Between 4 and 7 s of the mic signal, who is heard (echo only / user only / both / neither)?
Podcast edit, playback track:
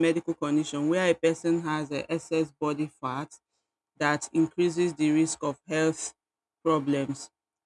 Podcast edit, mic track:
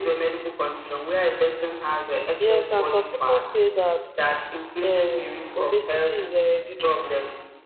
both